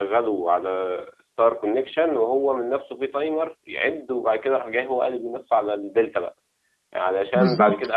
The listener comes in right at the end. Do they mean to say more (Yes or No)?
No